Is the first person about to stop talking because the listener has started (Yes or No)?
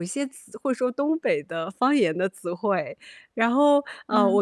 No